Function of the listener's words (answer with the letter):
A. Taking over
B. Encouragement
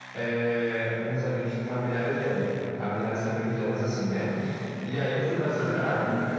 A